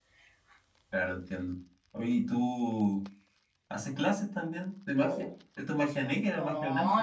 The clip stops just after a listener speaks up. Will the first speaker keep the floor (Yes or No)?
No